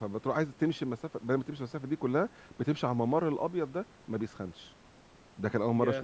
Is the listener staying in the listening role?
Yes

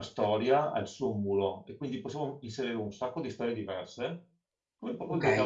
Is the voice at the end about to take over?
Yes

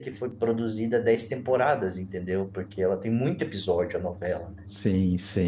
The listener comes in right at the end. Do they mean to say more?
Yes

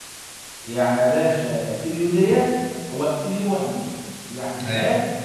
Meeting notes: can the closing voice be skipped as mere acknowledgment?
Yes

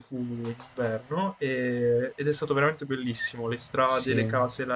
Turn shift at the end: No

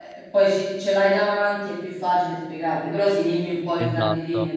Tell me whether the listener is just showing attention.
No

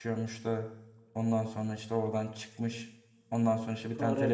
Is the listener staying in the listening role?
Yes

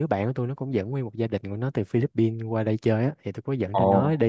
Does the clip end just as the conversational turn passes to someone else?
No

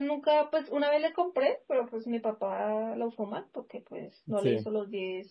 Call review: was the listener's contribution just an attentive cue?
Yes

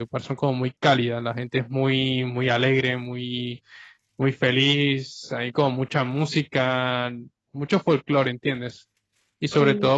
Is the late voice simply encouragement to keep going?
Yes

